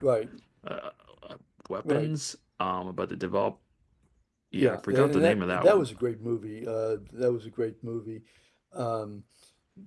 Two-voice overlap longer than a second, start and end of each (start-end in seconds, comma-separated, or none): 4.5-5.9